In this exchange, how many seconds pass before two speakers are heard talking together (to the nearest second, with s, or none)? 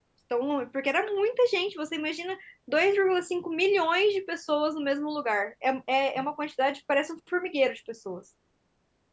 none